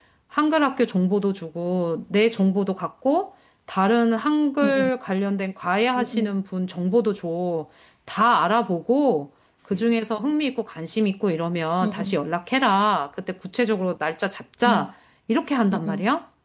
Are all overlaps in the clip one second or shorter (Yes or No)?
Yes